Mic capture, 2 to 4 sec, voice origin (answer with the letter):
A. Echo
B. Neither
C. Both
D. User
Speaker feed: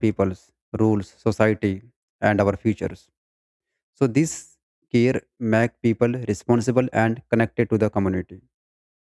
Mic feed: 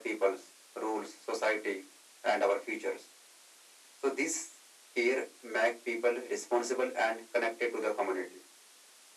A